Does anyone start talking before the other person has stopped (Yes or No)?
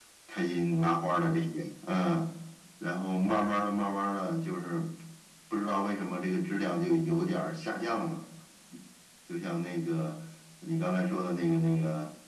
No